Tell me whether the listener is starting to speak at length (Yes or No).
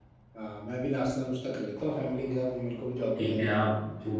Yes